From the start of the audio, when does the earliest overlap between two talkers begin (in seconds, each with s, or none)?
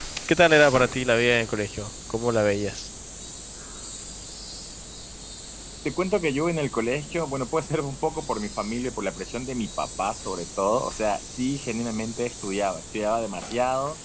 none